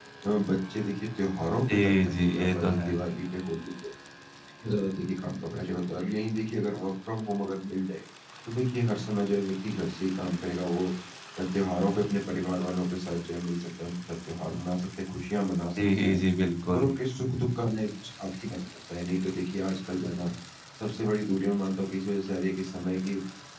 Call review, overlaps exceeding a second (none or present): present